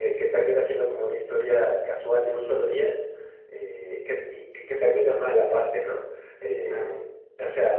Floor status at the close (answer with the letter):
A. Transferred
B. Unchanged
B